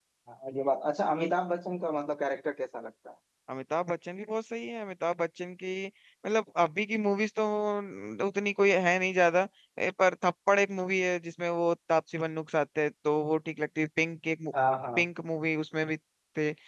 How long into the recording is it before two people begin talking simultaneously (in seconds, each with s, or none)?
none